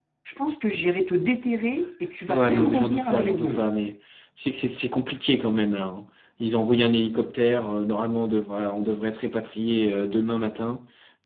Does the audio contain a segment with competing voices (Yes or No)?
Yes